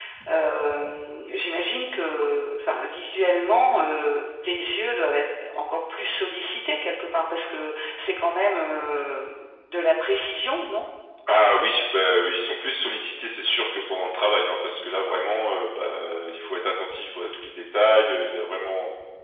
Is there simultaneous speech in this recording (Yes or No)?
No